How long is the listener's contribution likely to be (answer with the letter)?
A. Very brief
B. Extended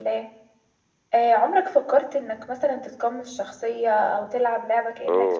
B